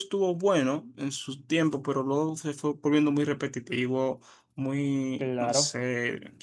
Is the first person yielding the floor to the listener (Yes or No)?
No